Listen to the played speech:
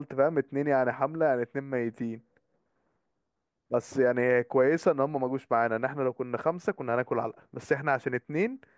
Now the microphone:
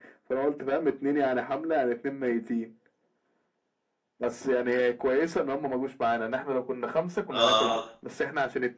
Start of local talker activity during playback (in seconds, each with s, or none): 7.3 s